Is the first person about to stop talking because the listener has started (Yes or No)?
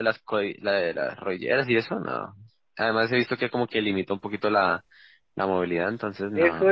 Yes